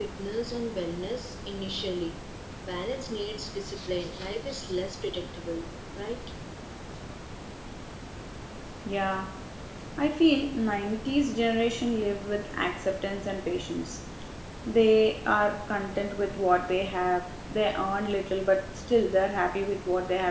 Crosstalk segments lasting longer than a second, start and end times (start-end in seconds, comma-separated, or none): none